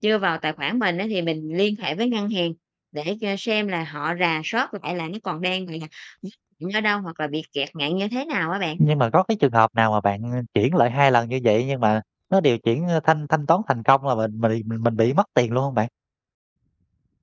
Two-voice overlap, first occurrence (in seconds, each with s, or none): none